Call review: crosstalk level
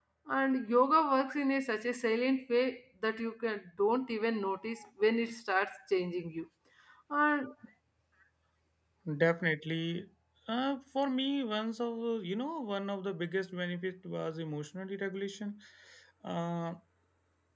none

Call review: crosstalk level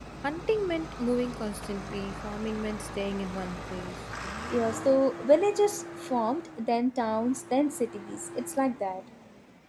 none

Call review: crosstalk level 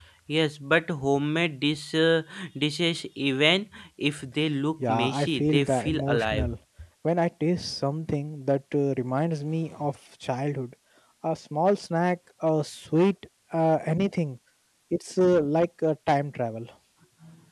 present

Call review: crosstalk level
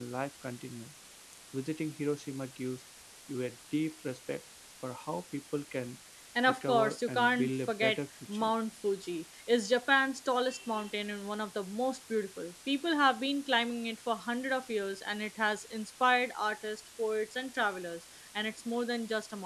present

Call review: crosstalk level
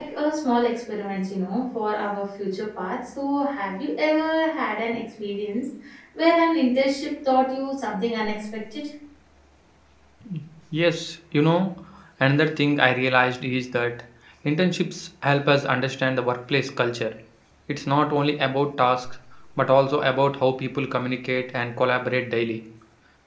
none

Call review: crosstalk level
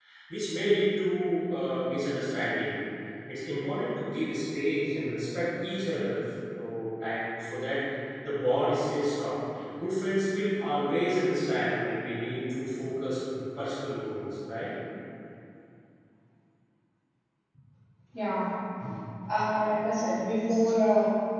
none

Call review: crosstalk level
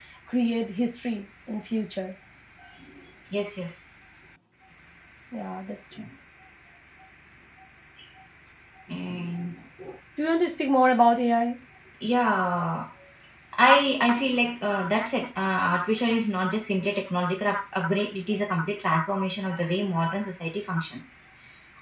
none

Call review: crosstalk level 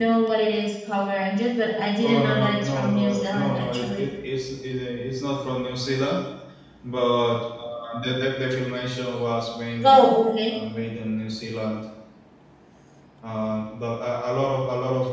present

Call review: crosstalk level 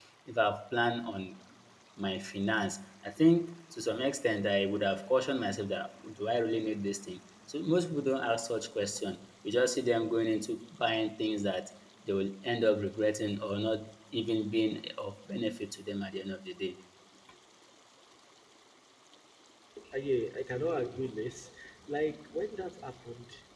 none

